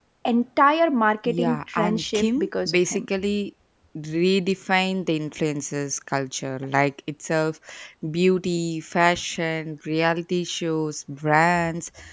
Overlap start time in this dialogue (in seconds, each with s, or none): 1.2 s